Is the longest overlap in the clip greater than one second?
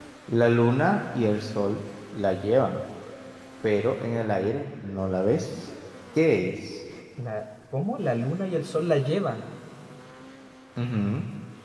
No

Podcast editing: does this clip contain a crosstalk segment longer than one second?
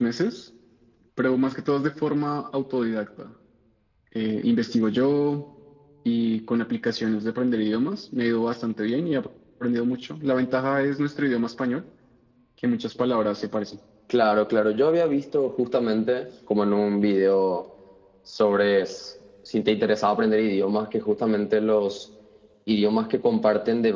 No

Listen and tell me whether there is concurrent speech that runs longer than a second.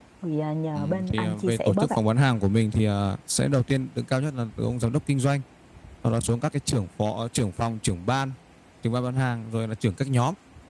Yes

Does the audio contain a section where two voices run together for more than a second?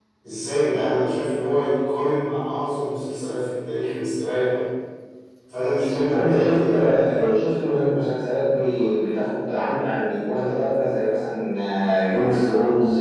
Yes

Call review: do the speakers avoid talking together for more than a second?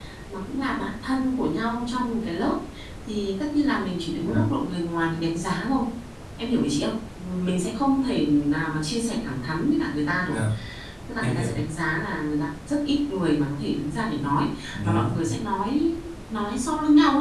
Yes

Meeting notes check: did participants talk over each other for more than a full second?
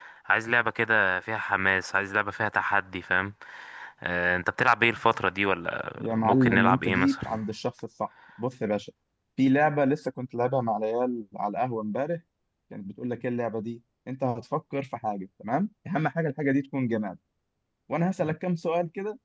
Yes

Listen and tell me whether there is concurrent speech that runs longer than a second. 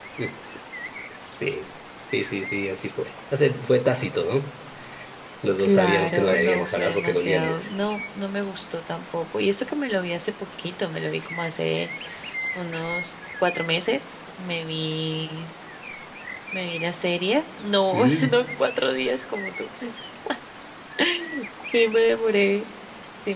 Yes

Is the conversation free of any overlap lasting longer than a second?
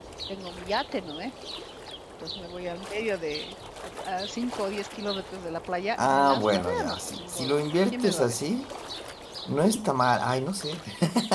No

